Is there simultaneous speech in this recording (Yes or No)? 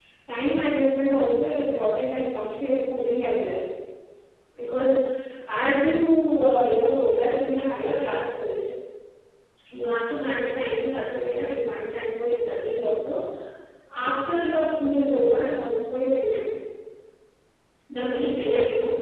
No